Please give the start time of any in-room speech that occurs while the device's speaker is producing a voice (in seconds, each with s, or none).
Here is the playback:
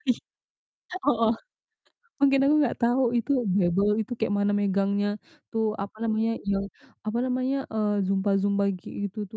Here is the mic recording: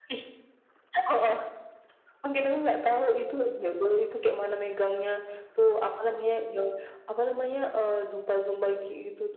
none